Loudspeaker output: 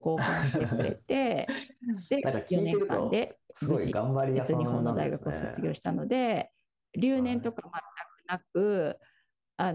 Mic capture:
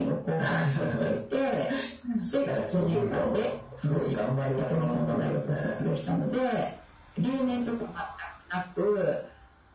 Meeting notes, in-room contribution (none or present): present